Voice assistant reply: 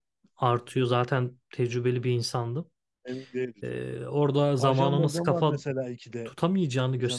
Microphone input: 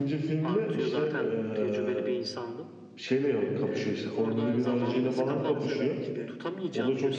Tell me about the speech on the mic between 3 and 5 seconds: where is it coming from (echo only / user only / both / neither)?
both